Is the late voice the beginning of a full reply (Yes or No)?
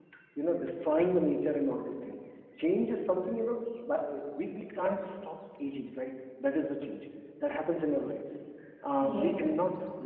No